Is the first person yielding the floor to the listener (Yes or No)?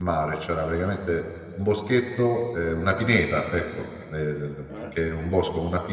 No